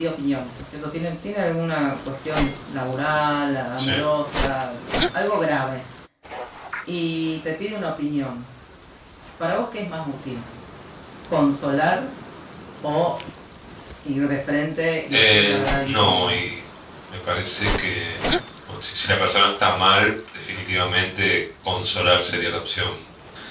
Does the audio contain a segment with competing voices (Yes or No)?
Yes